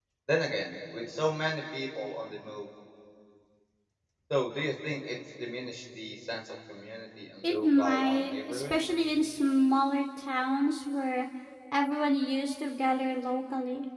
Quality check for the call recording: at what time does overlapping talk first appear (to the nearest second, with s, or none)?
7 s